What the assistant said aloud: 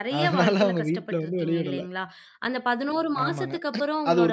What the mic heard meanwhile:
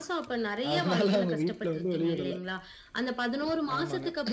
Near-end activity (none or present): none